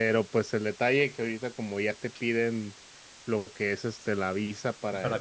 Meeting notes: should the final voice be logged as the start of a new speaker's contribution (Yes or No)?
No